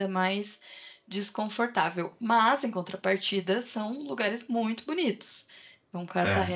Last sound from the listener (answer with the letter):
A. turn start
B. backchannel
B